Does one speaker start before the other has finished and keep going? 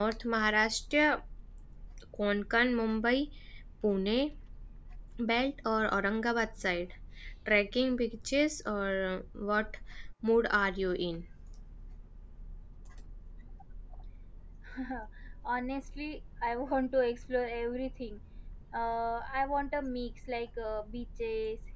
No

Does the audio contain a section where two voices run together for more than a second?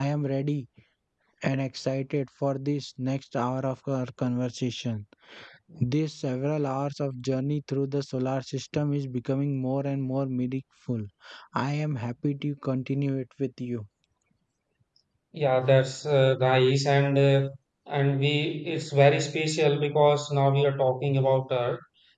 No

